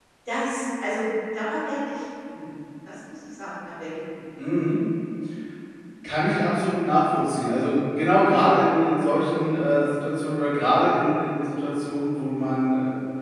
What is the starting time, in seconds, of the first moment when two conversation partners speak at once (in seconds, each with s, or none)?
none